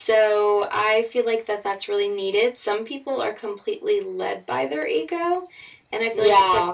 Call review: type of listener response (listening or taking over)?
listening